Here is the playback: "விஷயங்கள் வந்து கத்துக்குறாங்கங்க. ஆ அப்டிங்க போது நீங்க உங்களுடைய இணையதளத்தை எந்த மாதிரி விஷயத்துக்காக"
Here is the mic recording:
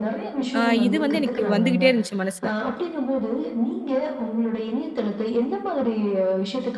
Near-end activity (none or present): present